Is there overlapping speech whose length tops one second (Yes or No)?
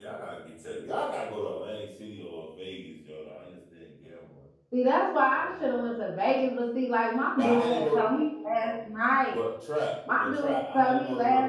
Yes